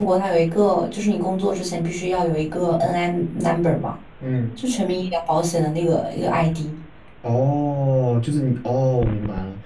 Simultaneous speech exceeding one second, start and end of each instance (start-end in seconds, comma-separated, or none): none